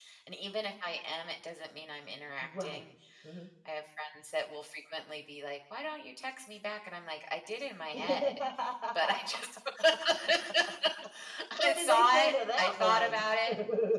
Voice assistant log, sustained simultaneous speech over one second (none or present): present